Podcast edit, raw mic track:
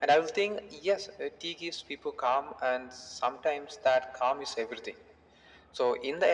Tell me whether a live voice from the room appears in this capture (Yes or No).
No